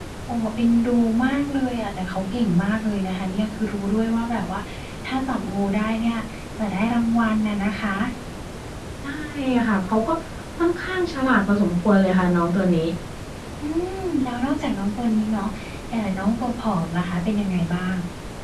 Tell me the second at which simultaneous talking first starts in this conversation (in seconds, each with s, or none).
none